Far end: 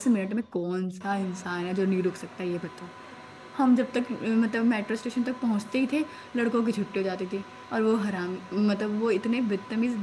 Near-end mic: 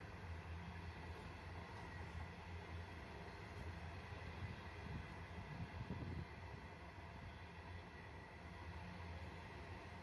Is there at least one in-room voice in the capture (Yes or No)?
No